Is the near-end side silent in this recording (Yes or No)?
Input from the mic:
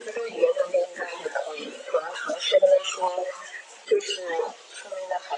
Yes